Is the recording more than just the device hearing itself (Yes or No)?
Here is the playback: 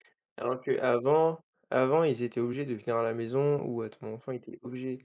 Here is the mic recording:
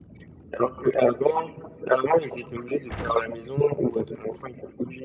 No